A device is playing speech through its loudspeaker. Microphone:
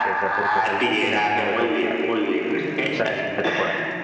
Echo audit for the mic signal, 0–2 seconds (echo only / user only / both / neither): both